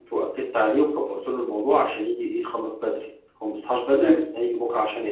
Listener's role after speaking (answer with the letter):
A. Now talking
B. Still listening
B